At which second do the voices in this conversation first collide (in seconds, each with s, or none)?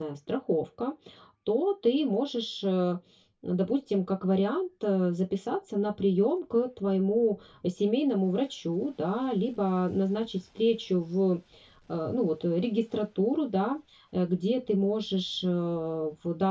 none